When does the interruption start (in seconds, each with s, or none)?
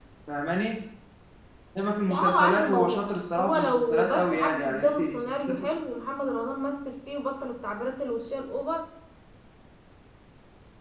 2.1 s